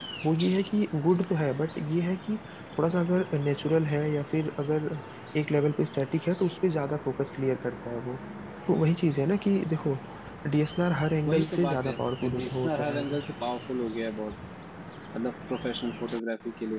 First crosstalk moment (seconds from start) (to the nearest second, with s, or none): 11 s